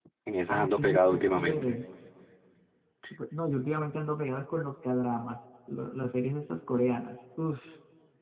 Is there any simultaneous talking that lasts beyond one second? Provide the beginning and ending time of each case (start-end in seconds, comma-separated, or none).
0.6-1.8